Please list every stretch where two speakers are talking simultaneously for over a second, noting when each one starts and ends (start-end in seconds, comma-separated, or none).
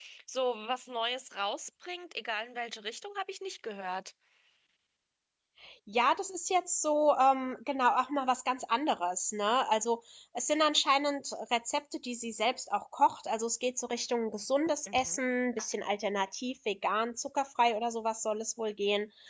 none